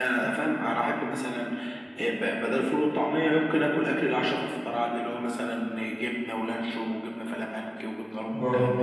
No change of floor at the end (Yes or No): No